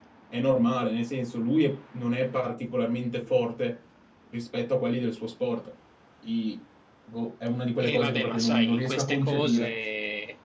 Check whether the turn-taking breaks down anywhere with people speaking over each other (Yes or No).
Yes